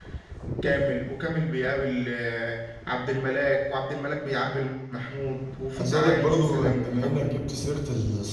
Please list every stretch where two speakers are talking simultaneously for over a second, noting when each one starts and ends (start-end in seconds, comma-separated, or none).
5.8-7.3